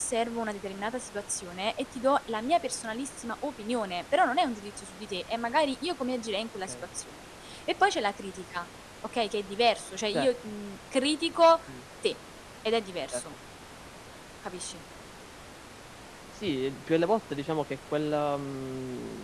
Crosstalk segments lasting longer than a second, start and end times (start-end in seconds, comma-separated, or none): none